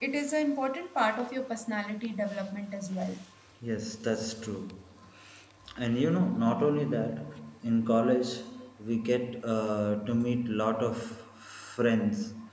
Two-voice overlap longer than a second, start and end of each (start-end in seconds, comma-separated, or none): none